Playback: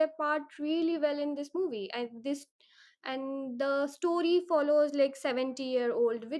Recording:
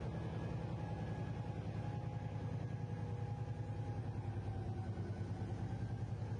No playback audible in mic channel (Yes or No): Yes